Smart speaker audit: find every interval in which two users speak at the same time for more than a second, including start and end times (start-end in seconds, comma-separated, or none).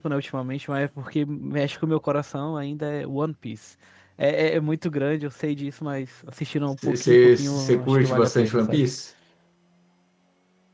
6.8-8.8